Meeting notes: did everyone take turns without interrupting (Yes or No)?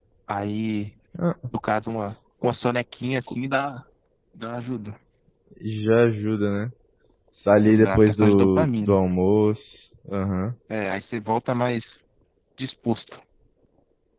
No